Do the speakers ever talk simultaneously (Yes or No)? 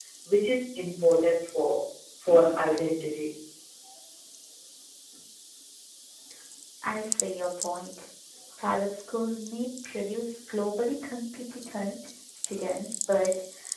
No